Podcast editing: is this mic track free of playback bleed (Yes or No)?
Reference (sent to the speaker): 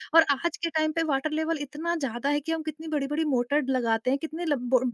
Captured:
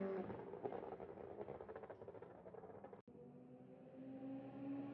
Yes